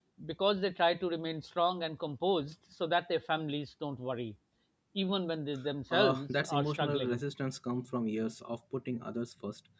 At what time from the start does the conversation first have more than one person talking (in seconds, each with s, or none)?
5.9 s